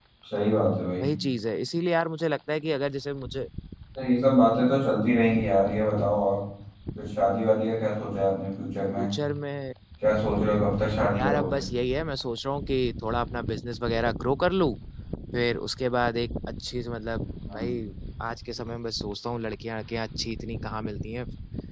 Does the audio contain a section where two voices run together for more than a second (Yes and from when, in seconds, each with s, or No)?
No